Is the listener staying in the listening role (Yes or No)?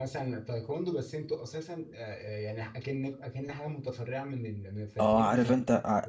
No